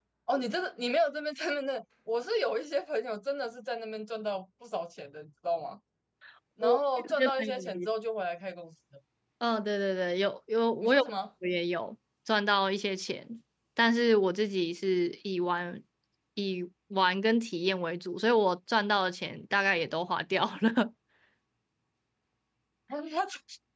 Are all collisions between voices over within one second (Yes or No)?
No